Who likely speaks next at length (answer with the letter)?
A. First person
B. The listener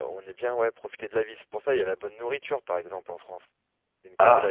B